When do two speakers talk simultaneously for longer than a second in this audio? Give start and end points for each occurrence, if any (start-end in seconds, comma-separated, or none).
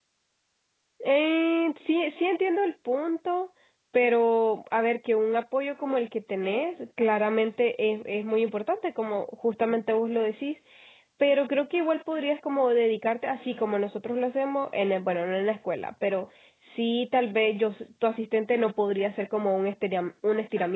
none